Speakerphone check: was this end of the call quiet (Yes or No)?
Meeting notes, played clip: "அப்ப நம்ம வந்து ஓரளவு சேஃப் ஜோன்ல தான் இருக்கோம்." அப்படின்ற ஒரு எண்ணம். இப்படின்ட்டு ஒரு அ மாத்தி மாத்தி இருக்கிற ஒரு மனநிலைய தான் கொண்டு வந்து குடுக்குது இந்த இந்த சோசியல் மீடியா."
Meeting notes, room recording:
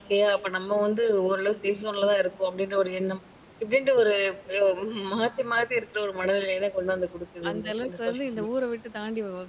No